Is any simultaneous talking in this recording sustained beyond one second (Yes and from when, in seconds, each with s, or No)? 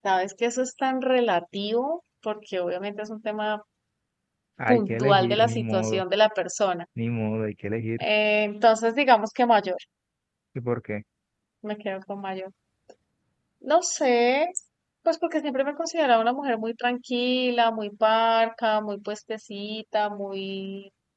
Yes, from 4.7 s